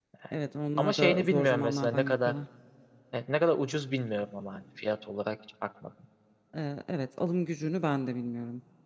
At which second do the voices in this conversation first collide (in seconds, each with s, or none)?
0.8 s